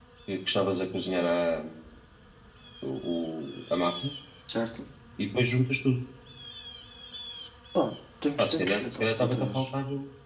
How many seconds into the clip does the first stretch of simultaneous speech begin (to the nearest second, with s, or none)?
8 s